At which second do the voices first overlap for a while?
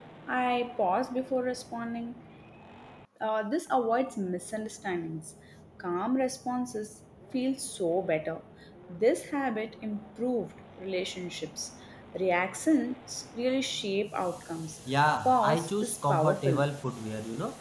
15.2 s

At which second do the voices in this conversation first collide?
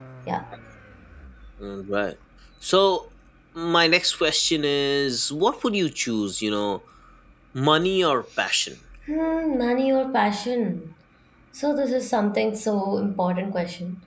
none

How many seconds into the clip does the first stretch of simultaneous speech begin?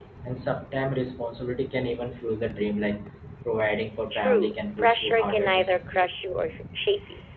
4.1 s

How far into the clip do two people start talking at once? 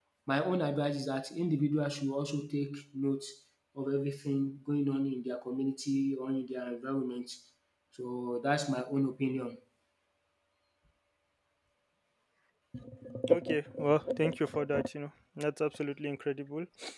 none

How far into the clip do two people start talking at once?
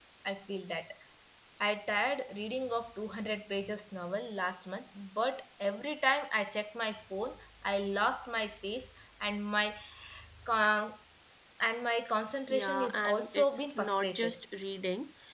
12.5 s

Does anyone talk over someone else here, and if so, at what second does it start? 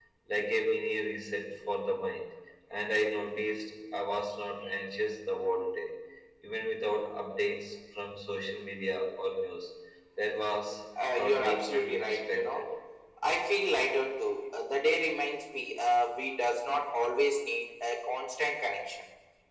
11.0 s

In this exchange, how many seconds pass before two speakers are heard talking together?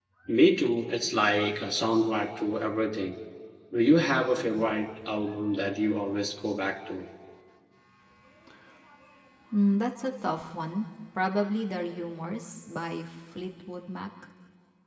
none

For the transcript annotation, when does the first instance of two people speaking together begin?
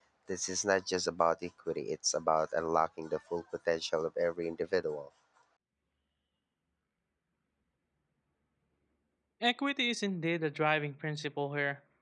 none

